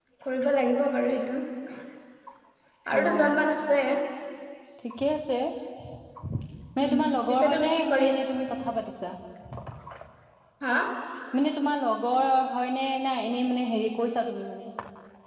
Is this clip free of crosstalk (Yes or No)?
No